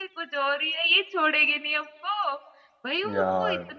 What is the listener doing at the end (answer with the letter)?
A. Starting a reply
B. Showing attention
B